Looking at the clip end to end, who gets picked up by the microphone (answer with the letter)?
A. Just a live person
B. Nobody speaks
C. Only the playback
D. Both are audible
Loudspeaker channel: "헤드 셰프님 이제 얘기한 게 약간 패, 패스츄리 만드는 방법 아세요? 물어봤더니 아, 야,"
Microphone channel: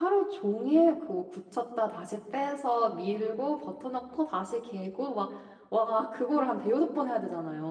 A